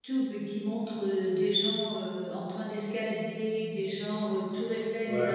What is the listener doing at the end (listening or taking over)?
listening